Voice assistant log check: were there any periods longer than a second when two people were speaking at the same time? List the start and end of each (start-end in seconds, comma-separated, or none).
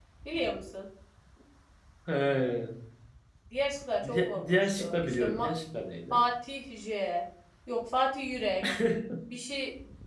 4.0-5.5